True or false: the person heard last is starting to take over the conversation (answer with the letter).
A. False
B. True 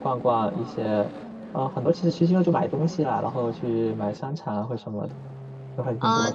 B